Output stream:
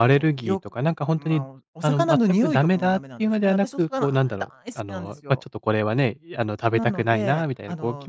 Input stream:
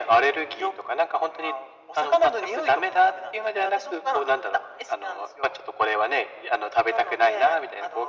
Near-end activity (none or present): none